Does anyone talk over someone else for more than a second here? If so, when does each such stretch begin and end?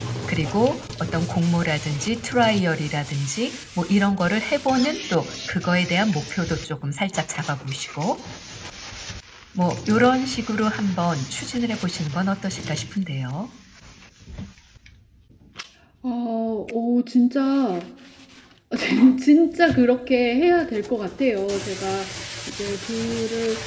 none

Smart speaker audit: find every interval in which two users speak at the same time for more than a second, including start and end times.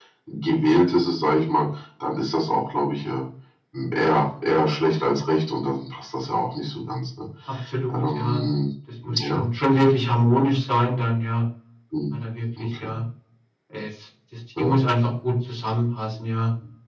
none

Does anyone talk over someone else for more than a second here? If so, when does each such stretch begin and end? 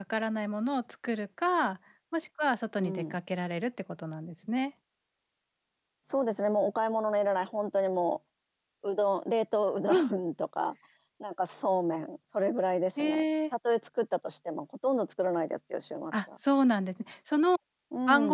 none

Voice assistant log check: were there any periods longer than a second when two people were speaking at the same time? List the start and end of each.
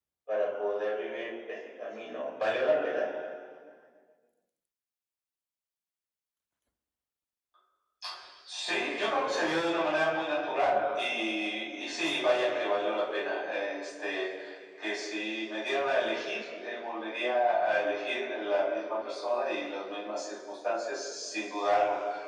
none

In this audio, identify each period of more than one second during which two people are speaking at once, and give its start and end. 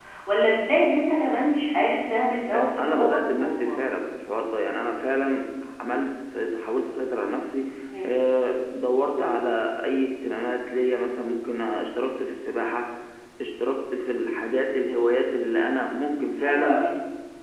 2.5-3.8

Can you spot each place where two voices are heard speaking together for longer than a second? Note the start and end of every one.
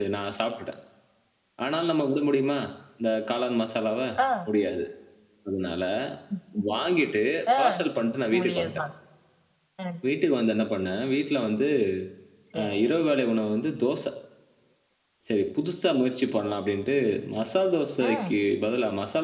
none

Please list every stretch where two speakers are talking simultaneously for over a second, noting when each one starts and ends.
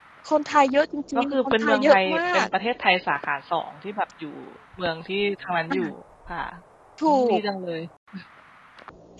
1.1-2.5

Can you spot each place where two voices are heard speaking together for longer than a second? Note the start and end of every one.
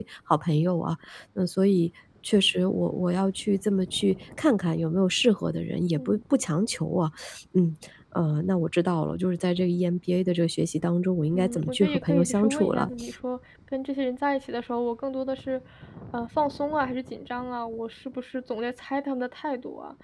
11.3-12.9

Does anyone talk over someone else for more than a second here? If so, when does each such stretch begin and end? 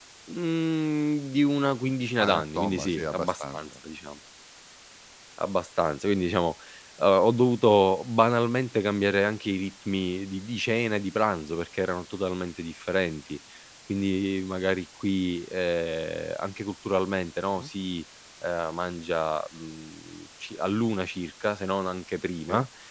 2.2-3.6

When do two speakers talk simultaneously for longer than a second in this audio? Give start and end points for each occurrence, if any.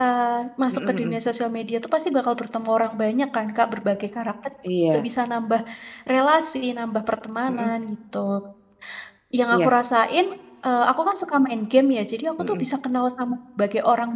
none

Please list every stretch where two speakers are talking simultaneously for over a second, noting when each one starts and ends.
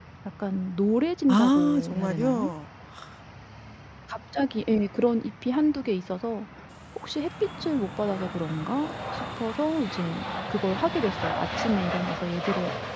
1.3-2.5

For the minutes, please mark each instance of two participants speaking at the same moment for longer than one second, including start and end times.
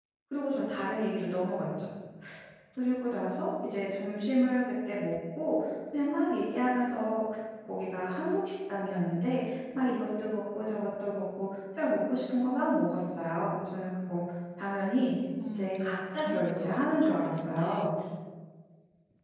15.5-17.9

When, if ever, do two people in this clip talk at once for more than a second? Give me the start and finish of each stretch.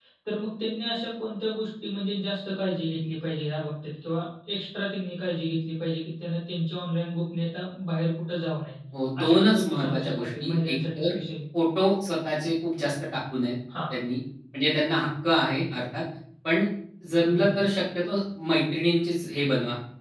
9.2-11.0

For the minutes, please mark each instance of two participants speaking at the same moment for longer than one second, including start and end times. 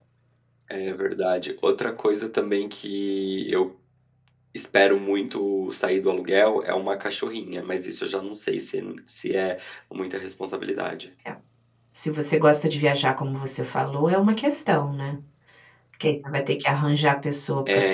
none

